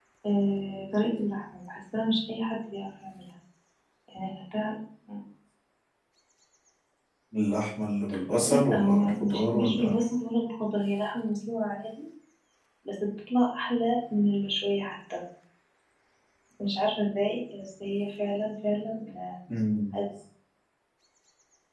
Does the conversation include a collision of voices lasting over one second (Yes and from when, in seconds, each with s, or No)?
Yes, from 8.4 s